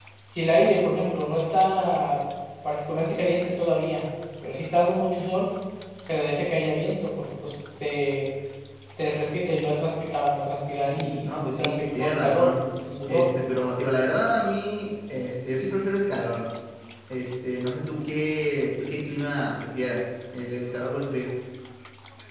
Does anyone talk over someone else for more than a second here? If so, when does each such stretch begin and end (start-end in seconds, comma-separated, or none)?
10.9-12.5